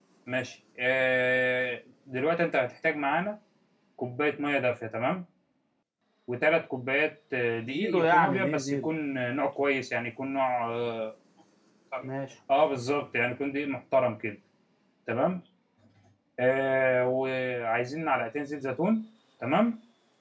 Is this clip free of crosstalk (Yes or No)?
No